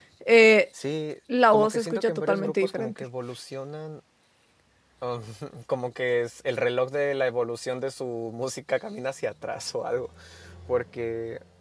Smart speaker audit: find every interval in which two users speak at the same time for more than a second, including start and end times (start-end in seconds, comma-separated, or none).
1.5-3.0